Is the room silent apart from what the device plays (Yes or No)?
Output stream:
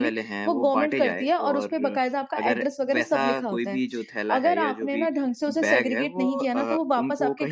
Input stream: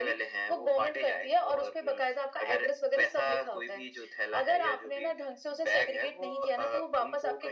Yes